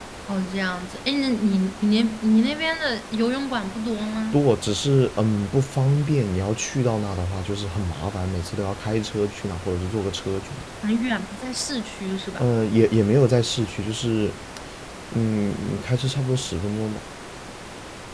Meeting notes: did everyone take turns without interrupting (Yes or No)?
Yes